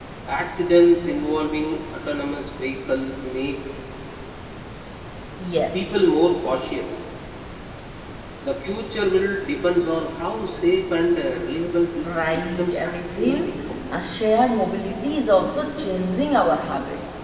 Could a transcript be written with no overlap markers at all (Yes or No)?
No